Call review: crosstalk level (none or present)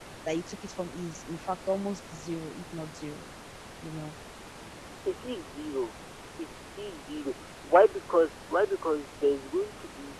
none